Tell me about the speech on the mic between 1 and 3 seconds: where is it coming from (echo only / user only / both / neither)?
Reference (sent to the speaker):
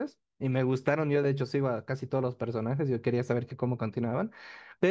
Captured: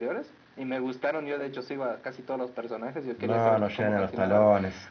echo only